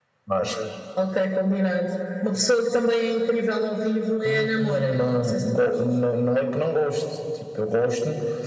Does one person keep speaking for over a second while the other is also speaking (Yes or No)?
Yes